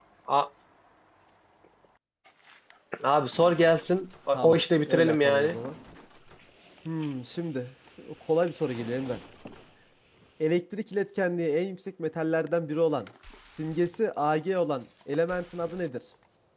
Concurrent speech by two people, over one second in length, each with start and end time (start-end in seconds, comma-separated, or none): 4.3-5.6